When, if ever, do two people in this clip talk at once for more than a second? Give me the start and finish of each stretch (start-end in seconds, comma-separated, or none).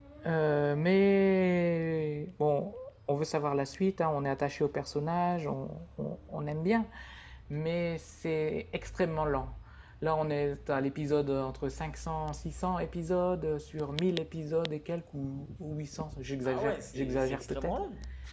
16.4-17.8